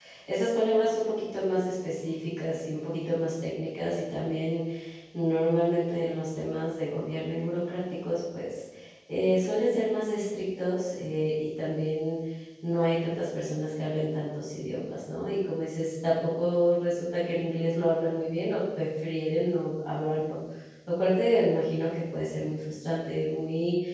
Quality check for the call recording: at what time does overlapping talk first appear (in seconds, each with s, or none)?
none